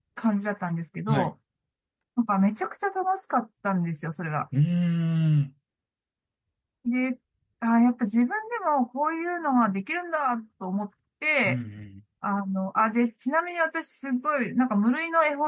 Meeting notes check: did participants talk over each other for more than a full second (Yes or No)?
No